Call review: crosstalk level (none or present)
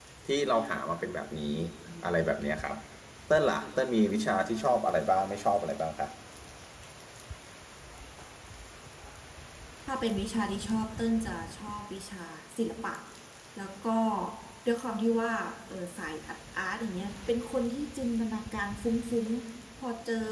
none